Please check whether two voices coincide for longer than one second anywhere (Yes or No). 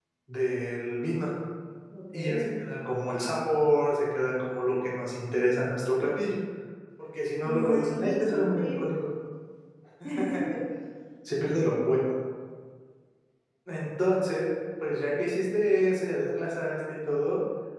Yes